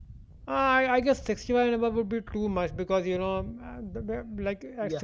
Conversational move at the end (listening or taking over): listening